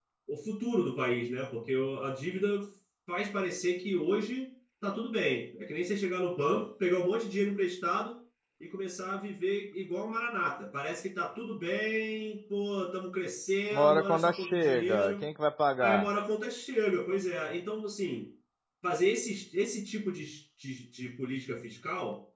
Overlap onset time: 14 s

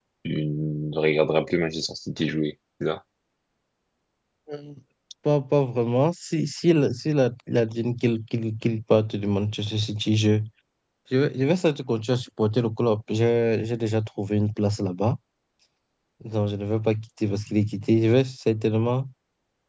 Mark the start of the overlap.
none

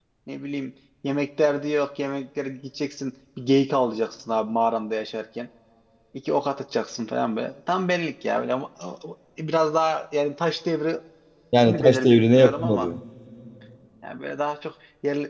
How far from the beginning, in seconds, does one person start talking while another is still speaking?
12 s

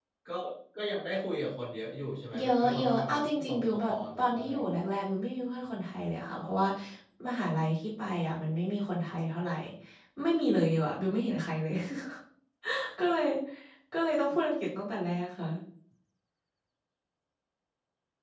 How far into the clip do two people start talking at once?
2 s

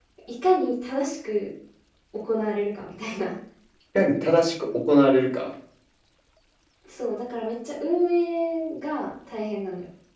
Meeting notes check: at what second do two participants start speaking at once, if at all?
none

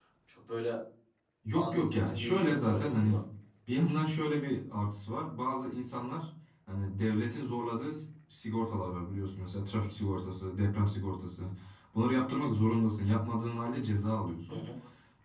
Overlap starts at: 2 s

